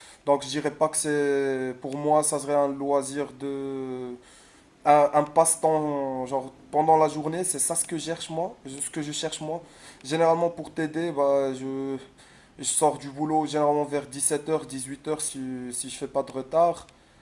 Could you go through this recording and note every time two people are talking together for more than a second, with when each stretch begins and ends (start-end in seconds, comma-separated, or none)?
none